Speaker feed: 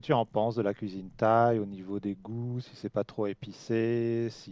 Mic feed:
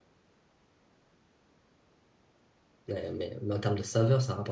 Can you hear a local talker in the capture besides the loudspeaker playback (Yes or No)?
Yes